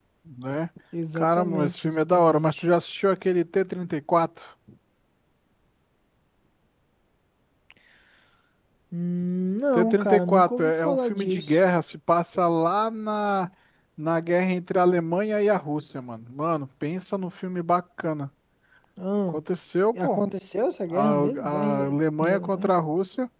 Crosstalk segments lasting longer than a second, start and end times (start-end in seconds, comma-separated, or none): 1.2-2.6, 9.8-11.6, 20.9-22.7